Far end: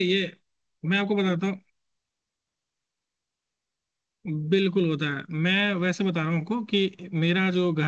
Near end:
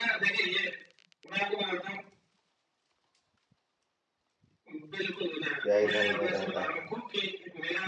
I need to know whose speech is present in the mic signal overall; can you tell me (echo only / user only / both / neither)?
both